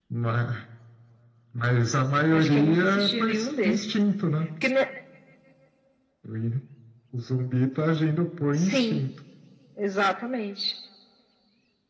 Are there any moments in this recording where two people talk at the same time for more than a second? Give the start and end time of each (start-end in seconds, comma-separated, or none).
2.3-3.8